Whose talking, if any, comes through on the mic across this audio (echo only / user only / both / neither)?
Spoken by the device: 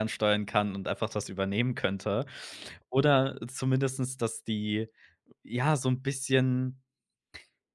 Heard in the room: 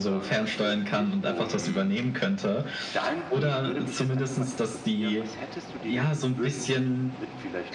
both